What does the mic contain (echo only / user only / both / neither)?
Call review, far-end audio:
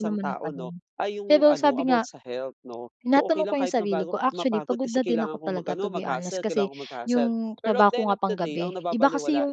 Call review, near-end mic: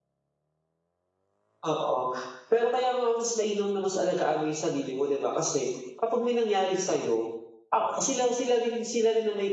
user only